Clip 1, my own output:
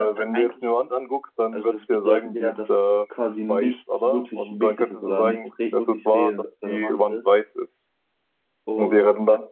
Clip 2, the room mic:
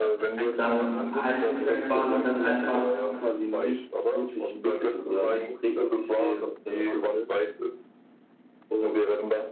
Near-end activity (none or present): present